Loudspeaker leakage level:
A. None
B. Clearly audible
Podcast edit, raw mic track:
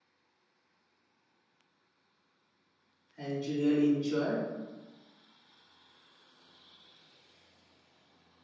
A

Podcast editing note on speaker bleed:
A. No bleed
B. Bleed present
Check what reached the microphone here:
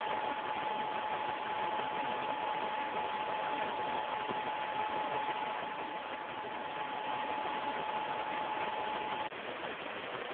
A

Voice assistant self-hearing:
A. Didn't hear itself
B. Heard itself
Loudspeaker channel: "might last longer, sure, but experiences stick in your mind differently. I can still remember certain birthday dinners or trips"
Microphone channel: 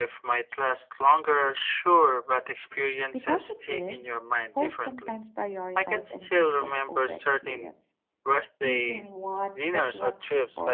B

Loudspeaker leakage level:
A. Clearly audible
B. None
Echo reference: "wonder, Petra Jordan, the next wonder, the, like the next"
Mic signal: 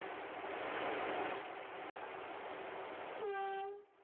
B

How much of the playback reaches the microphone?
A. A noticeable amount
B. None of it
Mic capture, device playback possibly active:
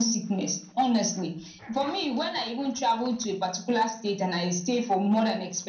A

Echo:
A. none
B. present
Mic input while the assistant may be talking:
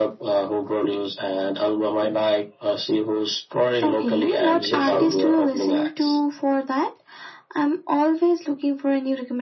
B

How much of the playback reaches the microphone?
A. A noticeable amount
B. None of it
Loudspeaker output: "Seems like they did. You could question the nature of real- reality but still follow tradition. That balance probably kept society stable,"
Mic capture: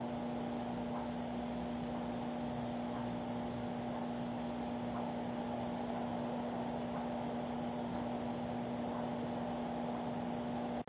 B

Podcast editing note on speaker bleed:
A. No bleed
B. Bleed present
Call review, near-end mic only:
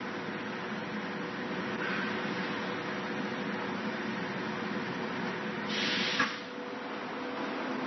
A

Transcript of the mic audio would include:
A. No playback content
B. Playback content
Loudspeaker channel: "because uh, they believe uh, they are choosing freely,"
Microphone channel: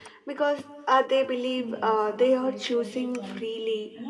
B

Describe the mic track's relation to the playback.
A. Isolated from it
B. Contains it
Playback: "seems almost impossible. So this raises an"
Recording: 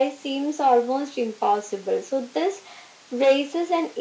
B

